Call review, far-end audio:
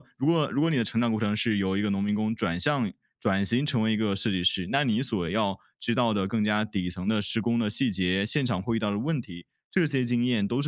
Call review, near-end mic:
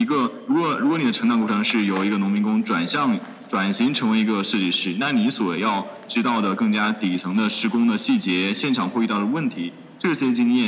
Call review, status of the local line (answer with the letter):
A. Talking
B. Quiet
B